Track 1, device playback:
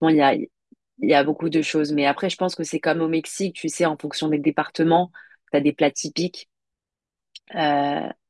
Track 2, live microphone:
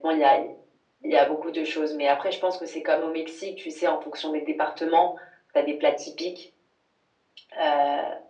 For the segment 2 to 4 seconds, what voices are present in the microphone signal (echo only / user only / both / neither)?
echo only